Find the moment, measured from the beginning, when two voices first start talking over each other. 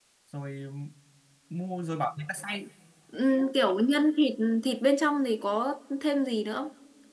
none

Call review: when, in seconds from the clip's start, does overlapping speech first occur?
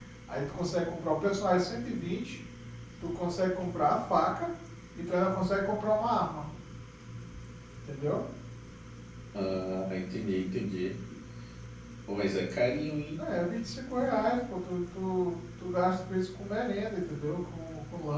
none

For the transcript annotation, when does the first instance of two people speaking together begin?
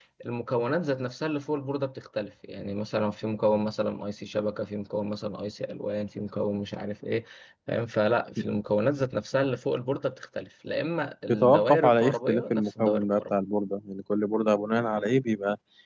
11.3 s

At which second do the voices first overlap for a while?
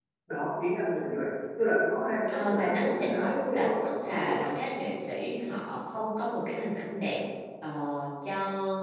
2.2 s

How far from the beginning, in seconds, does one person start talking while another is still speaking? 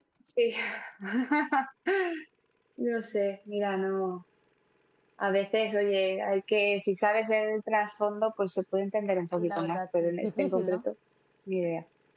9.4 s

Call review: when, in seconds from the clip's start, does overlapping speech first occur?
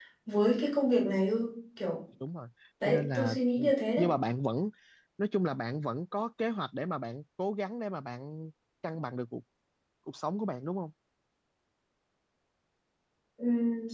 2.9 s

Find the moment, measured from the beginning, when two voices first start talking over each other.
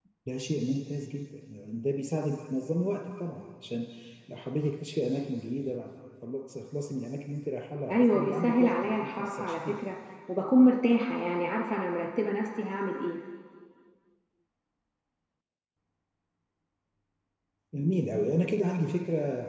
7.9 s

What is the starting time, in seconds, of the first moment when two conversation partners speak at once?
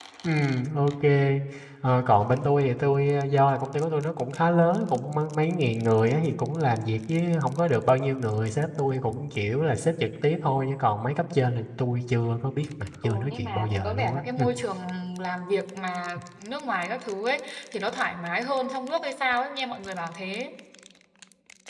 13.0 s

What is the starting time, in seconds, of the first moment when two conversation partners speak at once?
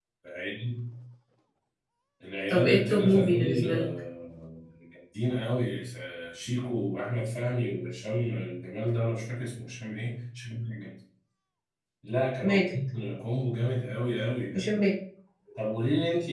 2.5 s

